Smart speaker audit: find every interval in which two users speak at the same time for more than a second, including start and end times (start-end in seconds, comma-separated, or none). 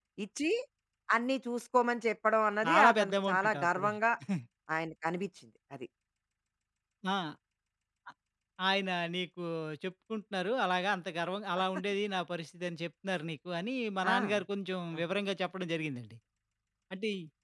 2.6-3.9